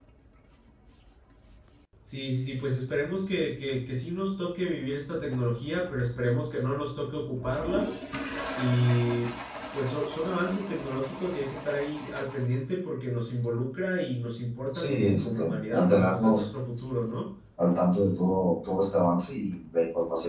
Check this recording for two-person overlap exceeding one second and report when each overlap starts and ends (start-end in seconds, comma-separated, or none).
14.7-16.4